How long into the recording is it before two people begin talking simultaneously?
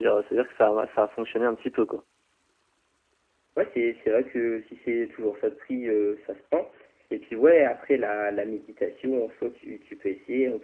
none

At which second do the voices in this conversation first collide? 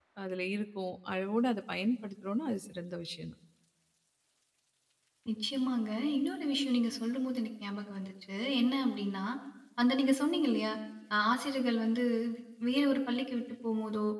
none

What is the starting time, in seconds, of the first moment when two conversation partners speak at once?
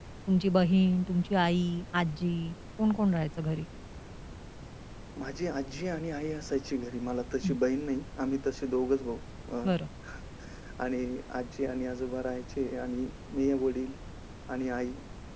none

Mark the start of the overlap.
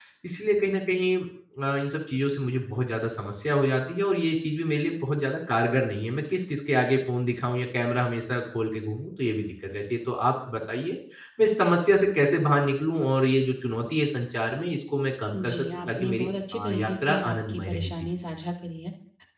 15 s

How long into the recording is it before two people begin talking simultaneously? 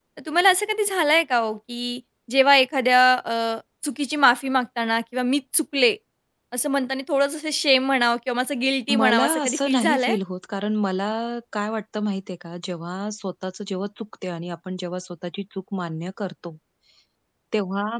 9 s

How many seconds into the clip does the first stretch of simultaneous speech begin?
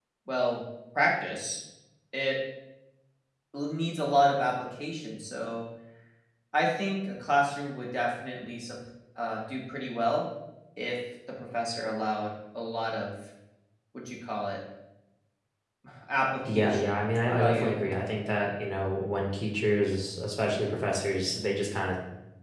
16 s

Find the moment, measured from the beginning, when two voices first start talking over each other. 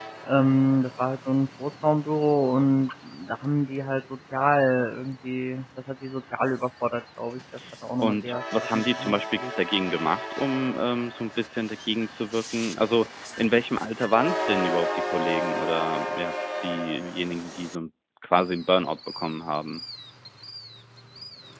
8 s

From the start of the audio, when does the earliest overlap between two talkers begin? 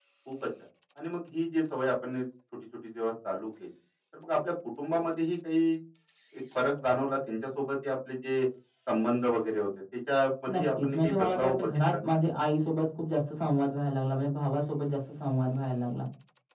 10 s

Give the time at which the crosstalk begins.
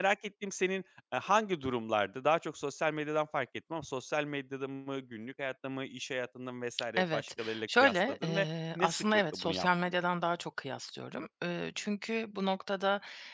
7 s

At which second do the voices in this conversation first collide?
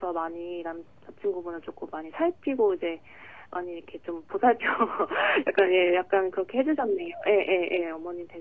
none

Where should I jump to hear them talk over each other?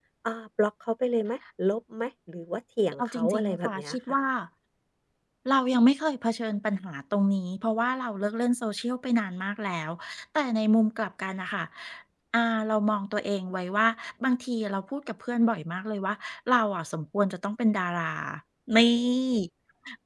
3 s

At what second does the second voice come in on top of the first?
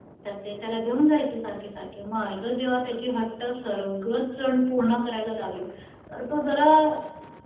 none

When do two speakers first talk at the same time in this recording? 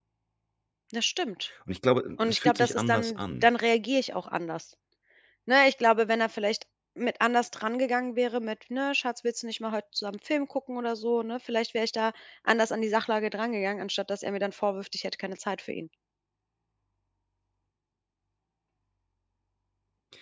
2 s

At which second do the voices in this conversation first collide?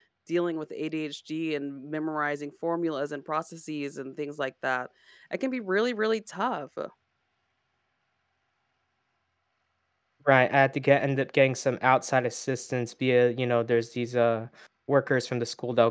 none

